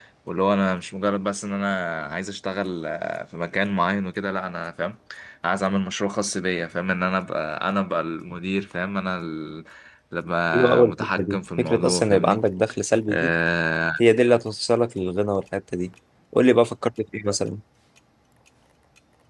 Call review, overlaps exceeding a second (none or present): present